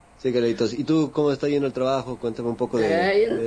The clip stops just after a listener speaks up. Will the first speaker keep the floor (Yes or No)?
No